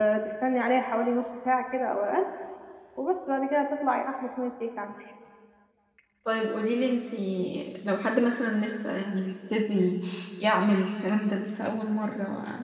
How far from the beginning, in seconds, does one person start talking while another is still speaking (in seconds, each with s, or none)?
none